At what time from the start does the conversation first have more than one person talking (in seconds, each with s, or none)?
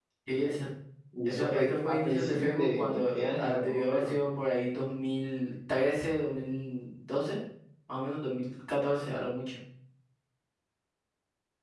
1.3 s